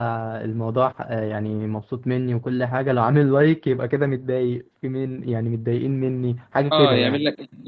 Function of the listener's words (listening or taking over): taking over